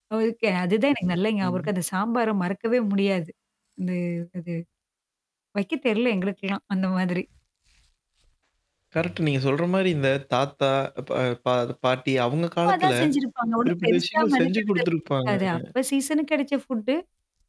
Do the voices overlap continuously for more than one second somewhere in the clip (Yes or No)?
Yes